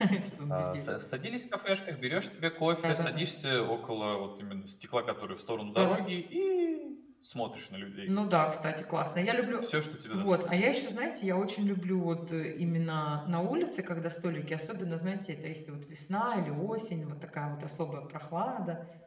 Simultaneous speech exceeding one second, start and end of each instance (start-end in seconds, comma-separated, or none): none